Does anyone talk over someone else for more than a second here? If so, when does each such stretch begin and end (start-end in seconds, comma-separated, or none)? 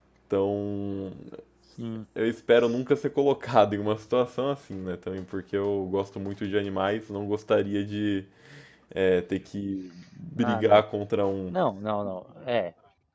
none